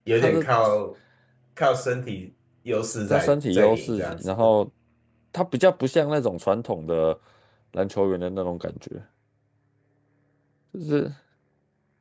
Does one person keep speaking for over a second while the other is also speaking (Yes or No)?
Yes